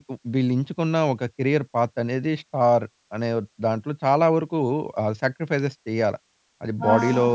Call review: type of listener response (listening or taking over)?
listening